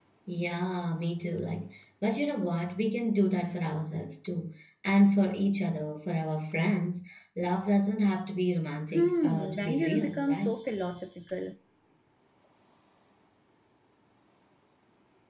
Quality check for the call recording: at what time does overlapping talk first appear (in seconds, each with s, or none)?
8.9 s